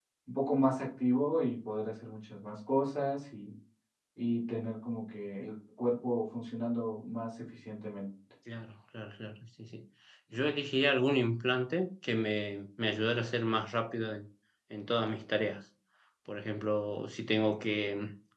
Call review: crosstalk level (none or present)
none